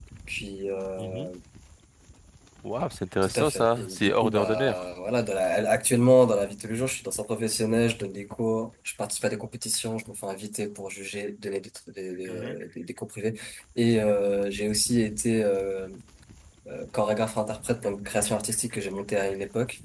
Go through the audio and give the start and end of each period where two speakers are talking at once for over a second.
3.2-4.8

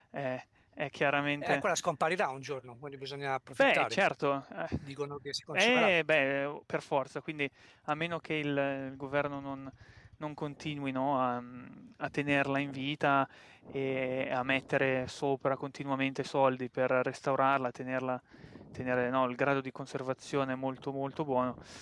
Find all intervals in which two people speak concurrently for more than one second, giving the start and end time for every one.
none

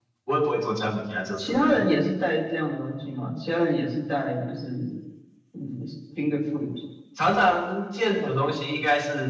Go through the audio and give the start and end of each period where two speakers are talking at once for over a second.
none

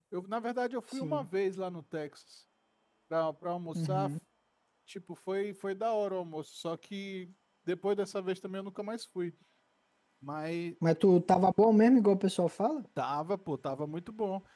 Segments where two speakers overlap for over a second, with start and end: none

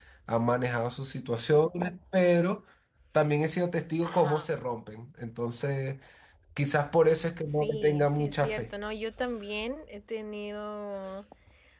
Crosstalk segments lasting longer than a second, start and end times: 7.5-8.7

